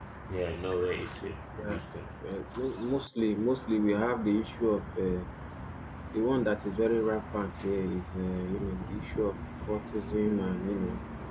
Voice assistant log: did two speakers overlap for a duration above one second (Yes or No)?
No